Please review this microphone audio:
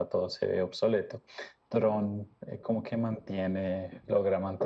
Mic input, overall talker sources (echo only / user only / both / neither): echo only